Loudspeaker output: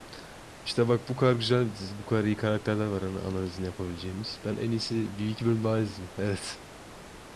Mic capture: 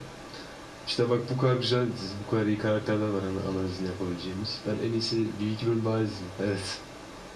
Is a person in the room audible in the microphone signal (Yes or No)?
No